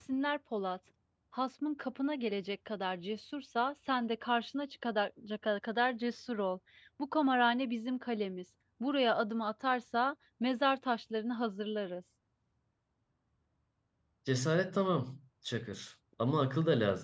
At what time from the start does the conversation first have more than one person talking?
none

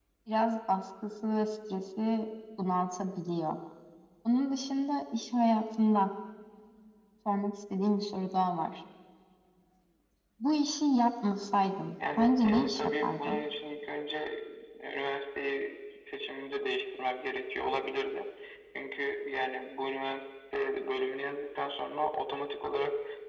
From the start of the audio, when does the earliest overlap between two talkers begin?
12.0 s

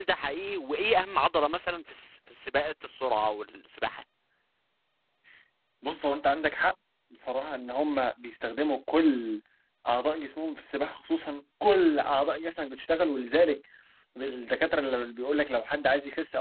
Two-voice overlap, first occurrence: none

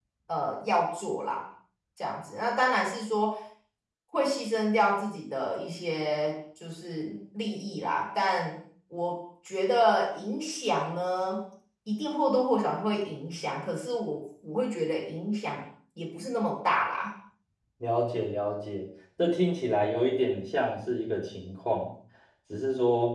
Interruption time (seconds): none

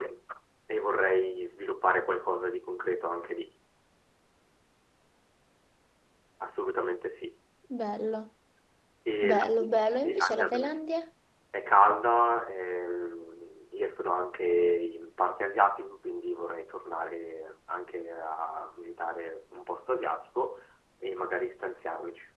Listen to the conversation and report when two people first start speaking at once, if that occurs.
9.2 s

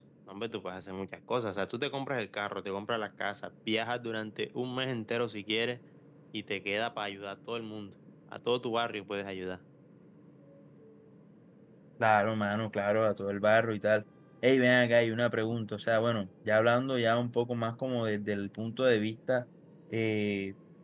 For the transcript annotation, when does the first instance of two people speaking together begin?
none

